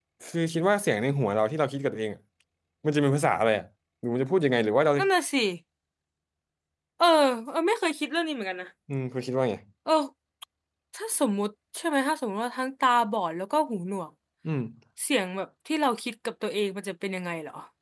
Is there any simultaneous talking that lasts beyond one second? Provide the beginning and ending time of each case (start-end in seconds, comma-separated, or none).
none